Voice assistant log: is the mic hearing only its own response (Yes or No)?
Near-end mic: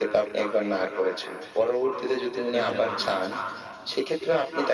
No